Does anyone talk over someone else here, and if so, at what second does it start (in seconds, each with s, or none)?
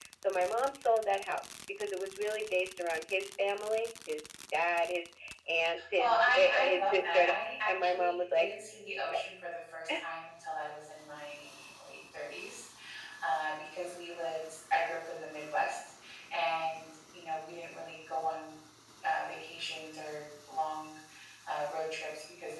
5.8 s